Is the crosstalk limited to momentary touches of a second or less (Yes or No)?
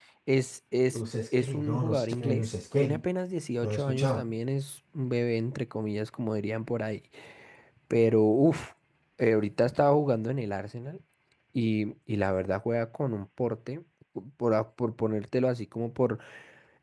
No